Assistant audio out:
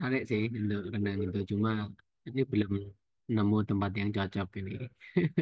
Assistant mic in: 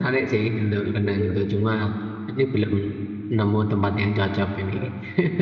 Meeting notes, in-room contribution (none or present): none